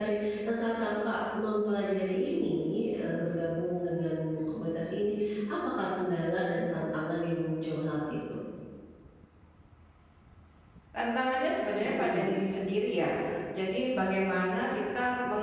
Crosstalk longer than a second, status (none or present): none